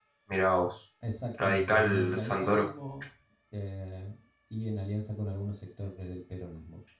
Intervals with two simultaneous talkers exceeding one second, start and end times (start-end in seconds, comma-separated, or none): 1.4-2.7